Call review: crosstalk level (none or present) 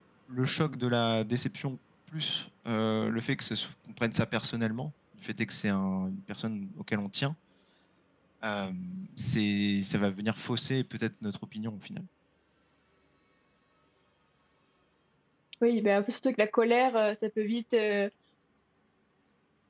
none